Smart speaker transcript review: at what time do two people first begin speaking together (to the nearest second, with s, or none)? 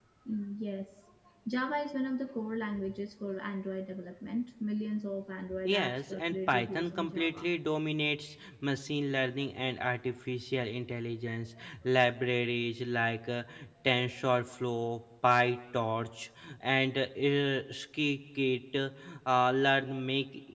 6 s